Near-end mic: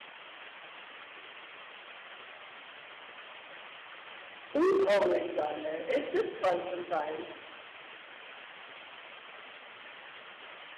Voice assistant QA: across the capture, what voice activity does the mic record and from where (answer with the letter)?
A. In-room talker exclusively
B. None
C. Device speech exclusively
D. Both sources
A